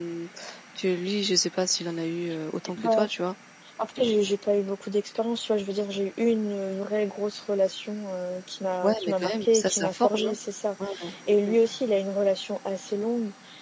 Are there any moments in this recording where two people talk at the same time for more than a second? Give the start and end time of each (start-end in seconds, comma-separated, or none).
8.8-10.3